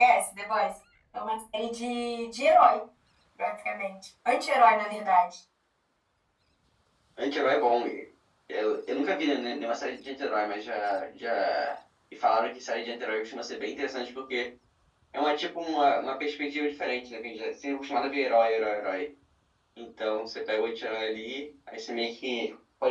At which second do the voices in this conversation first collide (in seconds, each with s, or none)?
none